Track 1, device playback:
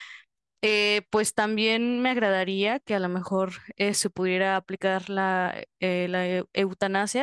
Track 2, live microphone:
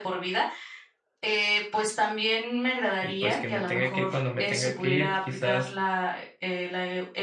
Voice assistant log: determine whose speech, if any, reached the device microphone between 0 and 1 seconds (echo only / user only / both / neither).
echo only